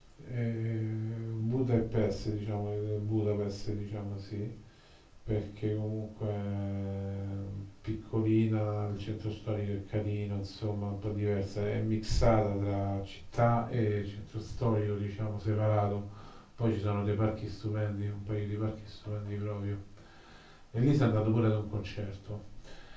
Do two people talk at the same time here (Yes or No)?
No